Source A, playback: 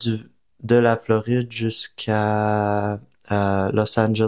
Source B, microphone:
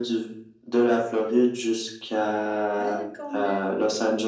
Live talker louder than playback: No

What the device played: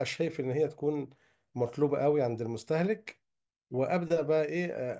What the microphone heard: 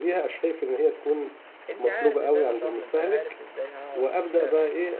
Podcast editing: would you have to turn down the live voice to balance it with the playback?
No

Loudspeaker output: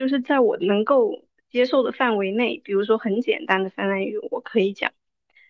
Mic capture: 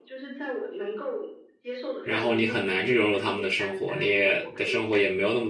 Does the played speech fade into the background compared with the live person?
Yes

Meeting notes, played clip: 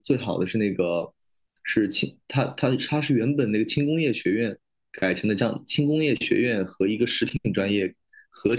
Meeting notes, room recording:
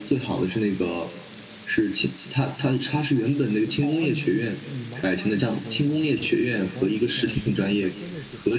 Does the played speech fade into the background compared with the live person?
No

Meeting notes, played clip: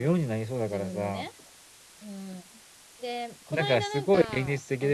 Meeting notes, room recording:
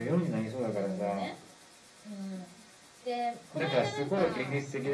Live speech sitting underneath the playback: Yes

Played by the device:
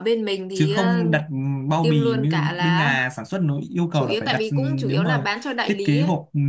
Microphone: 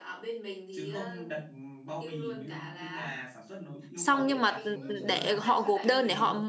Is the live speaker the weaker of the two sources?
No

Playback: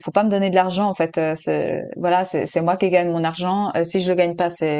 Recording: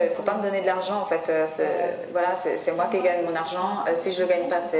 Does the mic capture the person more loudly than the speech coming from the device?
No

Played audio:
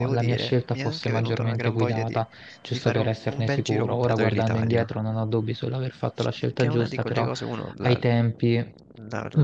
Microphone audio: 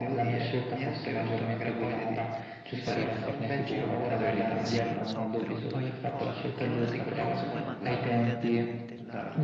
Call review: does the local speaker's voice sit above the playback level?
No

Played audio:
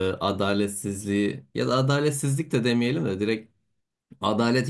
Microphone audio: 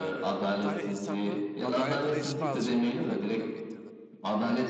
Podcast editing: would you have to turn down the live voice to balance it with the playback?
No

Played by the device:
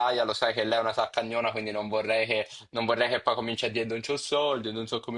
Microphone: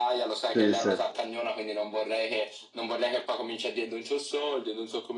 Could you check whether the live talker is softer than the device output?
No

